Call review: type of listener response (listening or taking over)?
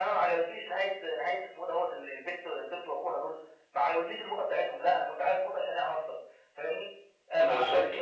listening